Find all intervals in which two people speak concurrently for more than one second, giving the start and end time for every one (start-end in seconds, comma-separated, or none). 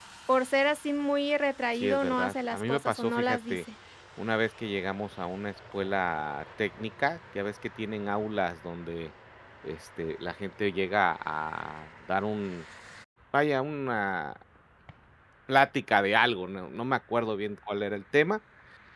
1.8-3.6